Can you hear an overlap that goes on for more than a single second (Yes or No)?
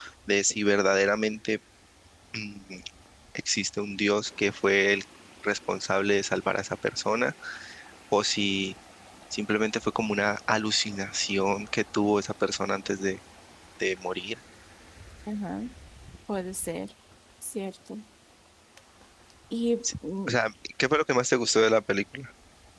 No